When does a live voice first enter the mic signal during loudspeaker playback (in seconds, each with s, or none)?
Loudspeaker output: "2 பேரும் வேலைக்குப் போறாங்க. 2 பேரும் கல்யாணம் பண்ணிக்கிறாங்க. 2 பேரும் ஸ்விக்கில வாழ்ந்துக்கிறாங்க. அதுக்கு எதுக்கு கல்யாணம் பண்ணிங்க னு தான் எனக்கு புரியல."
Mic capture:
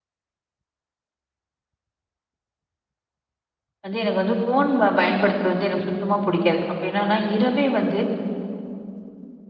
3.8 s